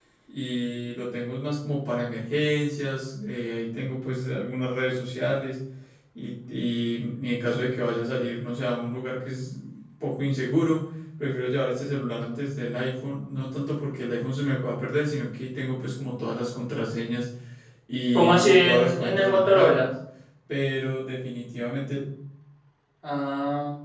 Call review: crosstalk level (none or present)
present